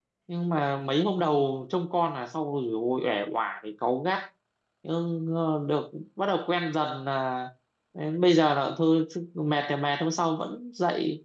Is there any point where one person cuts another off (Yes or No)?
No